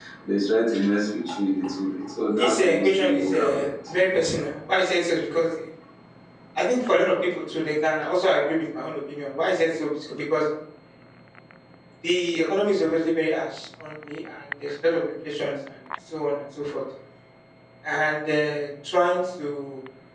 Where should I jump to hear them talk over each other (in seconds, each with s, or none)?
2.3 s